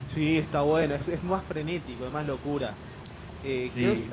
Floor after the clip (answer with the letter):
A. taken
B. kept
B